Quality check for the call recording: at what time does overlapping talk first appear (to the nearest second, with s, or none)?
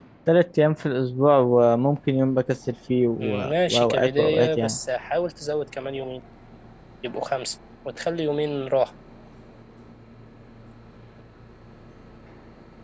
3 s